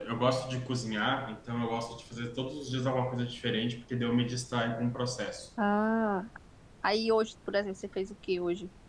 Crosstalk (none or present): none